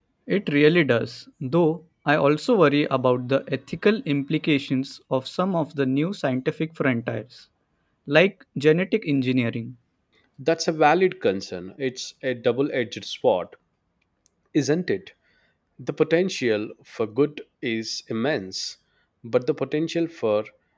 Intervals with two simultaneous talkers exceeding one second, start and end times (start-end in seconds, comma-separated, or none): none